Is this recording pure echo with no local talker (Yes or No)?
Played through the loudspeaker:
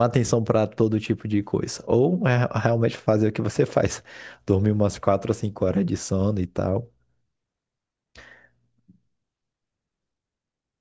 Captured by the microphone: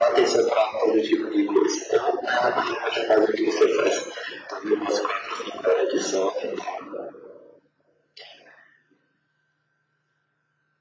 Yes